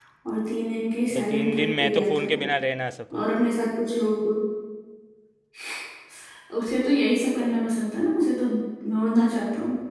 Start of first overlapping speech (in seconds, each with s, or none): 1.1 s